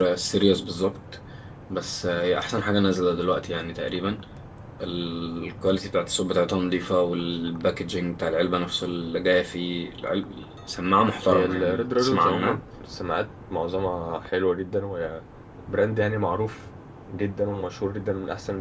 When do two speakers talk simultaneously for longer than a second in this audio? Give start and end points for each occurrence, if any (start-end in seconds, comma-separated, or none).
11.3-12.6